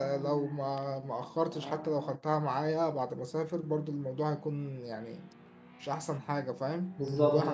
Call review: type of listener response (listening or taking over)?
taking over